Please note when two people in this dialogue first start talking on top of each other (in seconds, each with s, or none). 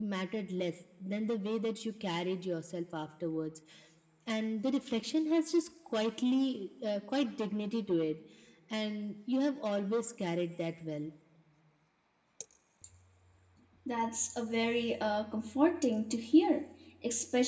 none